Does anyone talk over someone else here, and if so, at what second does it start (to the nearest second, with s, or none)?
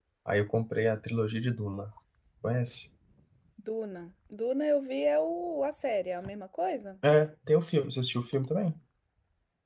none